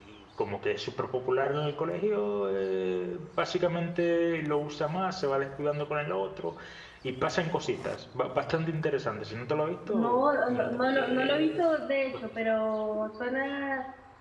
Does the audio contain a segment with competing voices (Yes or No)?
Yes